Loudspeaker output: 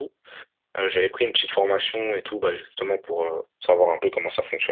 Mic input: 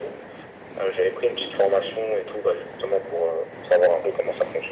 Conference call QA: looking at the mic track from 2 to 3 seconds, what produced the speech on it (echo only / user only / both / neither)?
echo only